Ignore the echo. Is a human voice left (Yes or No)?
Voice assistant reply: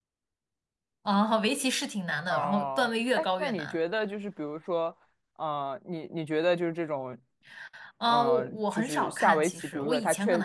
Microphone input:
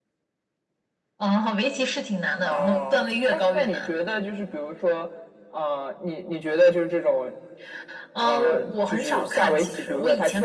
No